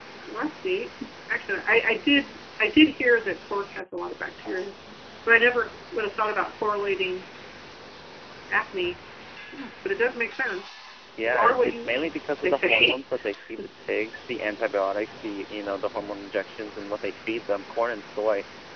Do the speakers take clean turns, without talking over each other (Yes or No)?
No